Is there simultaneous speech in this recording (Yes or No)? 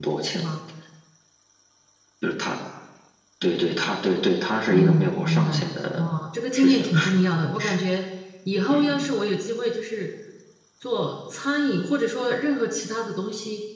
Yes